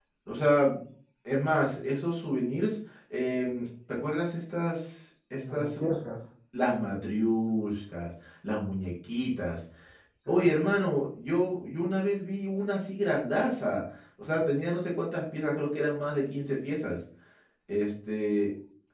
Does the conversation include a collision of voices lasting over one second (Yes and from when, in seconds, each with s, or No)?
No